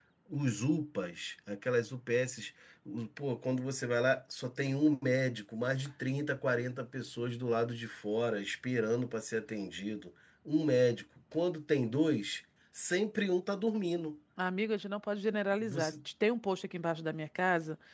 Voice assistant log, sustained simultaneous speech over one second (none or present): none